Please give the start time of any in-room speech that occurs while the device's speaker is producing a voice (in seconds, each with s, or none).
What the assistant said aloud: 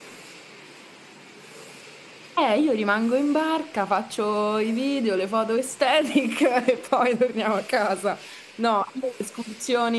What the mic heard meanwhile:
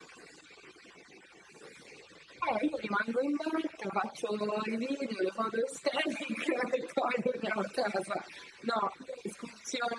none